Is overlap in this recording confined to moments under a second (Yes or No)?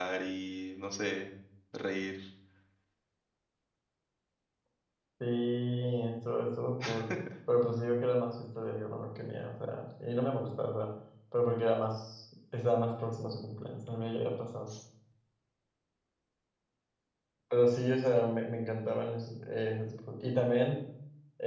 Yes